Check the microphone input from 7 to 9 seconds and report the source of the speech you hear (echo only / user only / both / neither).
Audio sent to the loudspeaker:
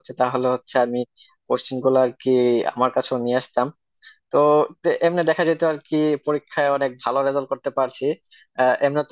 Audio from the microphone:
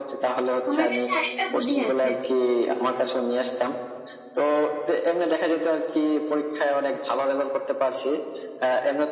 echo only